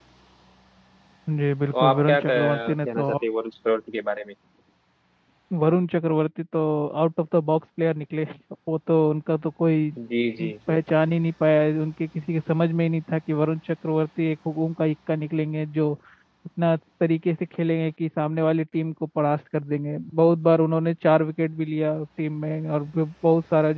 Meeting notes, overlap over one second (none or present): present